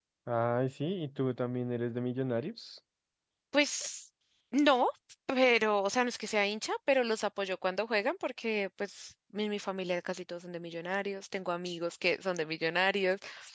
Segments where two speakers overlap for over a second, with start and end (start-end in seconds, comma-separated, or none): none